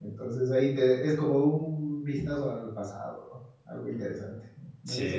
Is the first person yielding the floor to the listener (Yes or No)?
Yes